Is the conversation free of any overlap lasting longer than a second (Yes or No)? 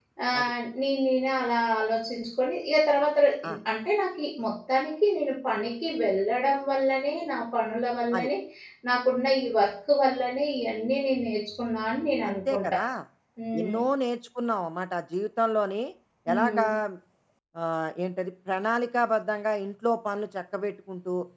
Yes